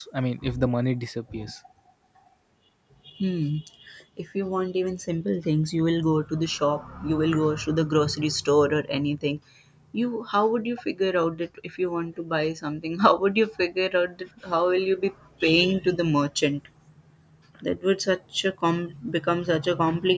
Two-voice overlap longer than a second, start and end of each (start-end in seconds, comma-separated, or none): none